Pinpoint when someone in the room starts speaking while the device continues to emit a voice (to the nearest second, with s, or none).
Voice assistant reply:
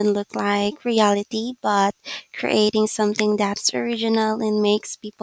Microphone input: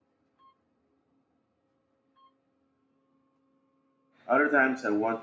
4 s